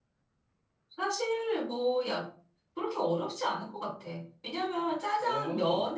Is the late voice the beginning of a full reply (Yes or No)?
No